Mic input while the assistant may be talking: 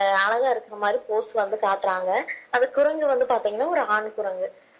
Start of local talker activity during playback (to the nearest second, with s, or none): none